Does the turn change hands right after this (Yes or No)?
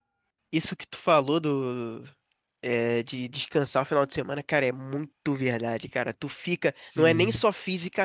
No